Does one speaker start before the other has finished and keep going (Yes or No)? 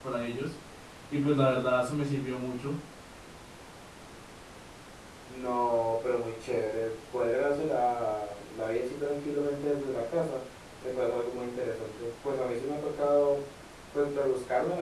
No